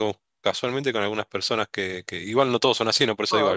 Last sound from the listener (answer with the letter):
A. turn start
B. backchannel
A